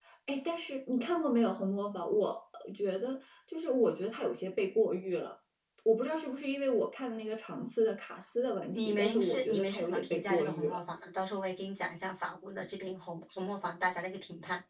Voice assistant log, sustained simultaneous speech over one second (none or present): present